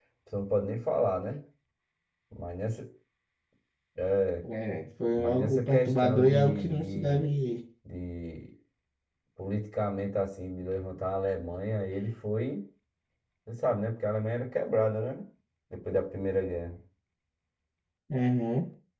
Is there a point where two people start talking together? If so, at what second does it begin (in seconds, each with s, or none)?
5.1 s